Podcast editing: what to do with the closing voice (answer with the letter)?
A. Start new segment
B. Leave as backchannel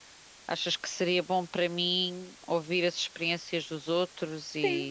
A